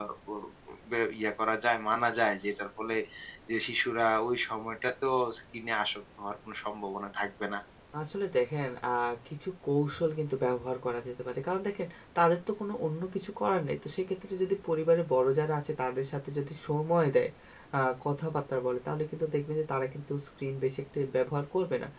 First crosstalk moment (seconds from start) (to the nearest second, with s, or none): none